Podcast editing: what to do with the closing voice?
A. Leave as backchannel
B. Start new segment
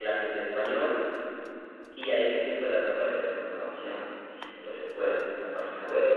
A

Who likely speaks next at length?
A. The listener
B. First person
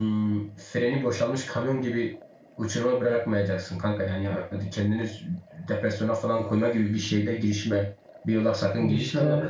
B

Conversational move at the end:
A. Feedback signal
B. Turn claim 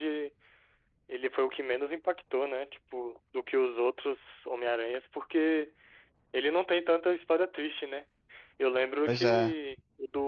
A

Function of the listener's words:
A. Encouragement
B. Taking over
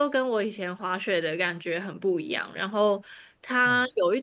A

